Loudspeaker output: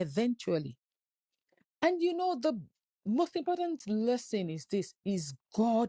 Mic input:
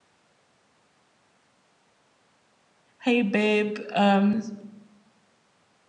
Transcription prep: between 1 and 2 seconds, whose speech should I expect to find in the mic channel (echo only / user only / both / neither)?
neither